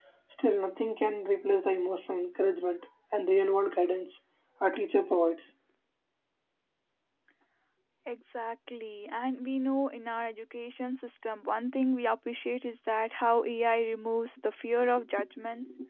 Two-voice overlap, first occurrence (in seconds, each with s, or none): none